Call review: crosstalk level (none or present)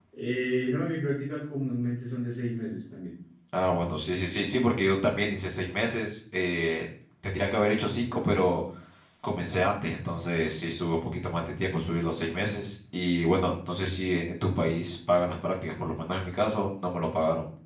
none